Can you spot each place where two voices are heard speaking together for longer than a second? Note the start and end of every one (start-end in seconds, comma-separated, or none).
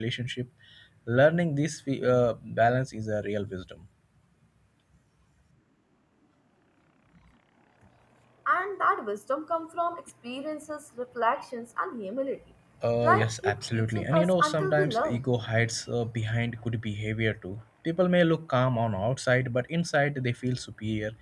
13.0-15.2